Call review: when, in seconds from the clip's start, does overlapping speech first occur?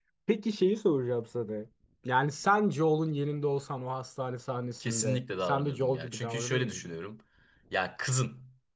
5 s

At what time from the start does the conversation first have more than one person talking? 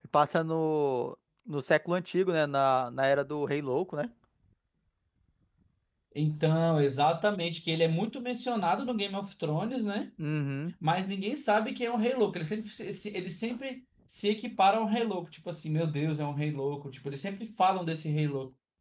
none

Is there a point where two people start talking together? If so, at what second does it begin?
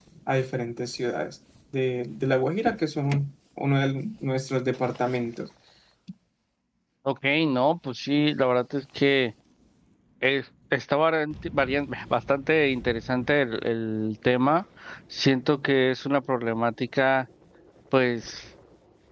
none

